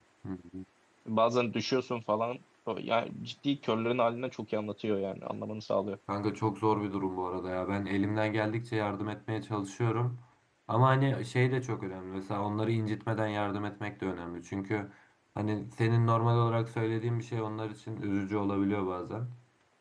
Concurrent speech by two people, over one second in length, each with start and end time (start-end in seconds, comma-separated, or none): none